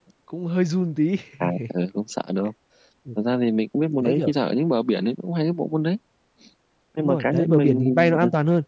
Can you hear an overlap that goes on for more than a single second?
Yes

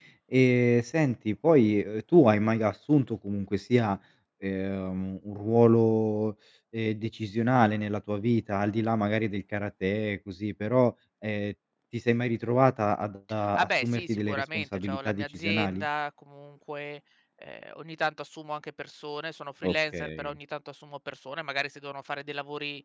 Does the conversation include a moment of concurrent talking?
Yes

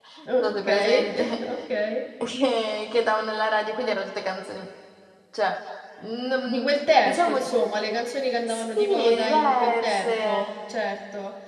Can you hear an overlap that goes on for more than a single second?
Yes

